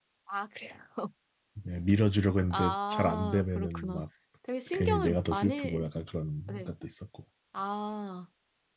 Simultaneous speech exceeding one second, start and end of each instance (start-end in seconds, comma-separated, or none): 2.5-4.0, 4.7-6.0